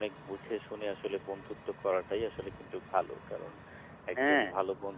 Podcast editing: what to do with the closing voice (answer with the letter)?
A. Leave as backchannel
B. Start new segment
A